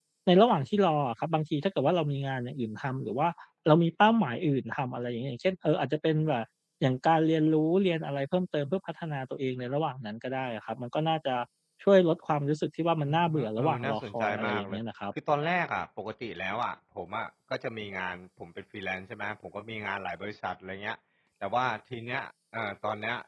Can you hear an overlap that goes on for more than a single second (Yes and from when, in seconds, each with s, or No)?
Yes, from 13.1 s